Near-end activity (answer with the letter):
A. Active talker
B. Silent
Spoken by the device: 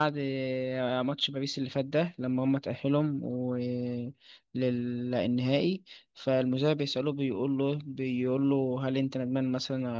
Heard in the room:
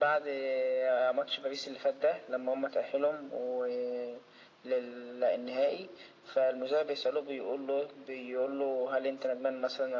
B